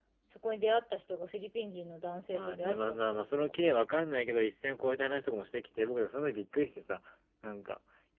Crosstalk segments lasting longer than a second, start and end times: 2.3-3.8

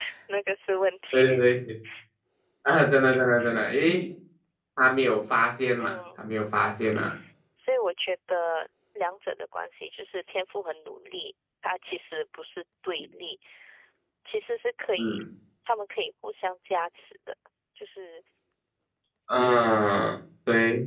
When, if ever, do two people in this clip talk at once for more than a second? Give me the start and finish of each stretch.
none

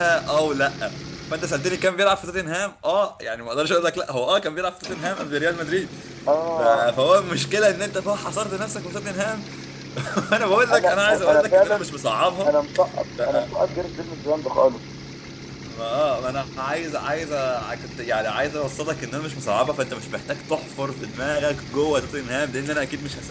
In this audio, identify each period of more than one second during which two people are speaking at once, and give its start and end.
10.5-11.9

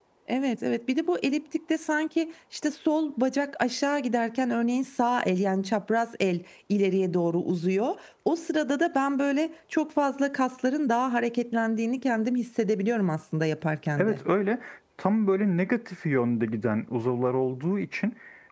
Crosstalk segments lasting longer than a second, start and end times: none

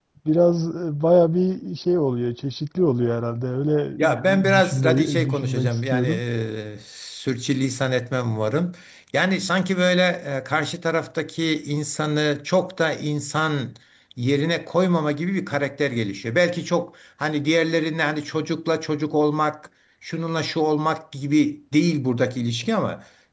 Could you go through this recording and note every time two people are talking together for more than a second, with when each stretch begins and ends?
4.2-6.2

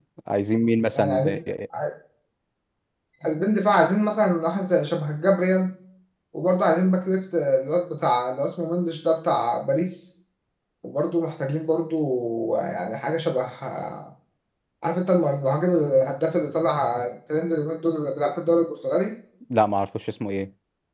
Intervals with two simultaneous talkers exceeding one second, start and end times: none

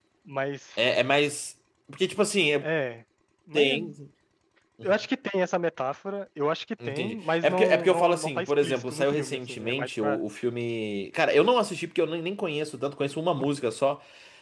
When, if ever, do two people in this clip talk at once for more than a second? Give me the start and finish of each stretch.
6.8-10.2

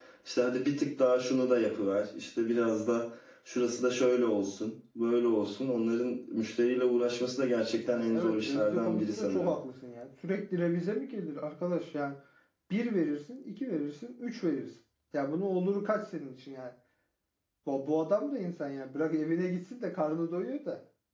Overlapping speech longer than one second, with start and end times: 7.9-9.5

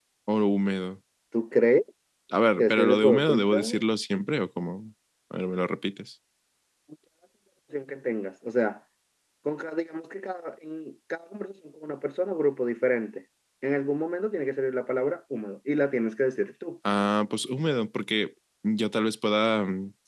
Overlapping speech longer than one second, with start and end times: 2.6-3.8

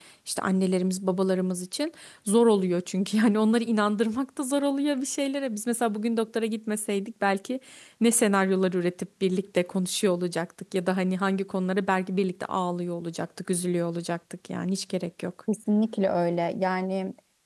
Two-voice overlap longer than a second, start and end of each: none

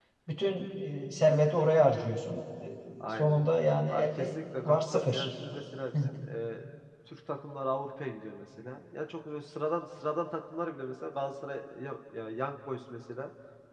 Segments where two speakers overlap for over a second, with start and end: 3.9-5.3

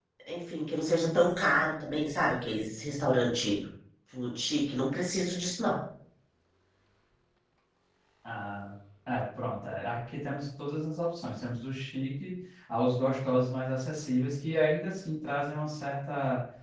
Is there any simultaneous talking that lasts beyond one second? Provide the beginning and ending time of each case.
none

